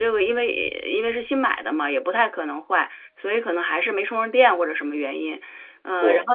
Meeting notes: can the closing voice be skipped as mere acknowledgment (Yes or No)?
Yes